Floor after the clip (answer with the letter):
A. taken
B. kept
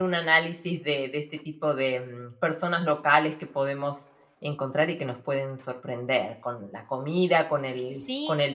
B